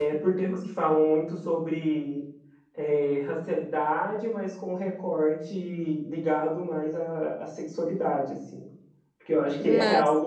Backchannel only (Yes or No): Yes